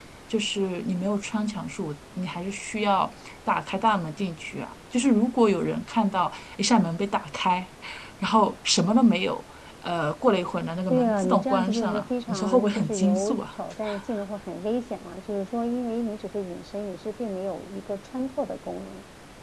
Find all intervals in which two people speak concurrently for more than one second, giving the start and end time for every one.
10.9-13.4

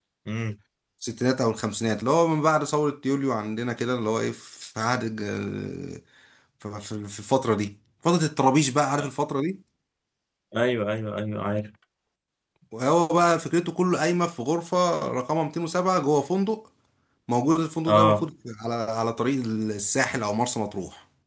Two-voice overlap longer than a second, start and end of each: none

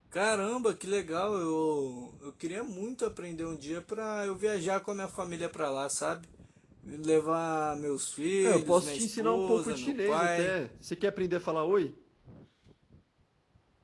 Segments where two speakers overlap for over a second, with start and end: 8.4-10.5

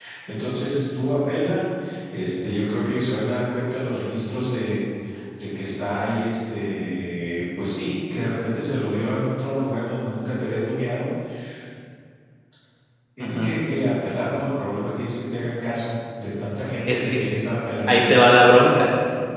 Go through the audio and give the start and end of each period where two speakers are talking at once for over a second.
none

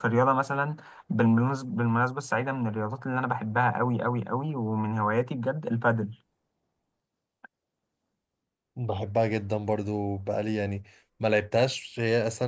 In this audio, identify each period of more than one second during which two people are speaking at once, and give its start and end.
none

